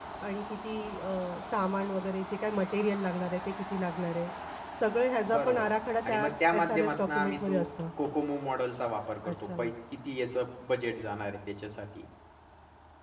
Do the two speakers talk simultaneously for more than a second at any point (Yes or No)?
Yes